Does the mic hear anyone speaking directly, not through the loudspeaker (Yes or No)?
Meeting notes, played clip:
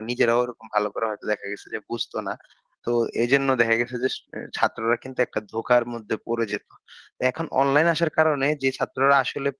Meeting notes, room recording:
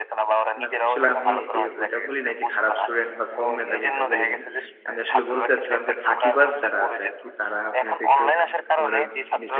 Yes